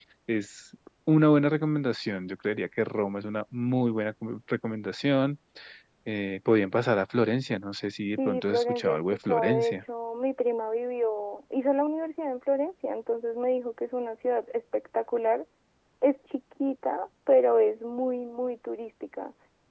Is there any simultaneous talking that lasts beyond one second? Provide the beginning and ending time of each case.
8.2-9.8

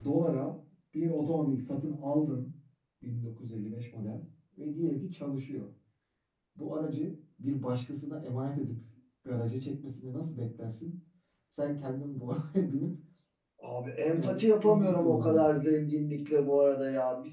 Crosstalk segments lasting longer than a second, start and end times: 14.1-15.5

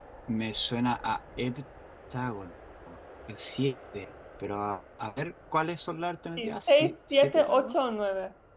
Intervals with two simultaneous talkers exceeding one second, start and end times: 6.4-7.7

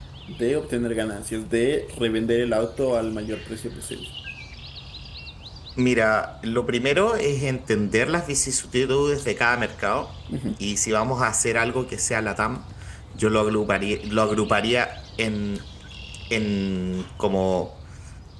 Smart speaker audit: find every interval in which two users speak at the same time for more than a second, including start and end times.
none

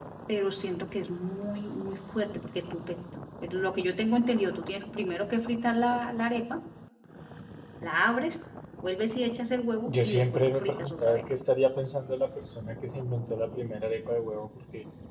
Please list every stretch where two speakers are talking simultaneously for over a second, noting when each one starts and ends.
9.9-11.2

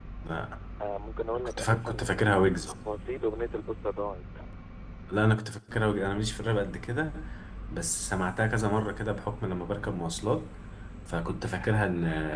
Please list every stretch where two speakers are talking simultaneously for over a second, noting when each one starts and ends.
1.4-2.6

